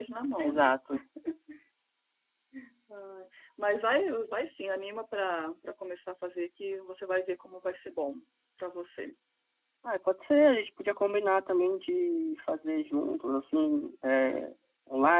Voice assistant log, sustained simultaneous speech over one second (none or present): none